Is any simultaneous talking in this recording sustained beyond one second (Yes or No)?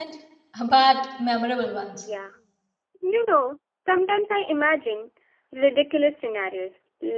No